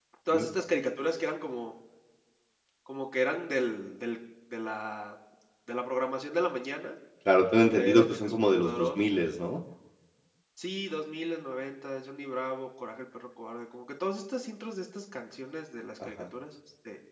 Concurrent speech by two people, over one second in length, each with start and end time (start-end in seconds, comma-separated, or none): 7.8-9.2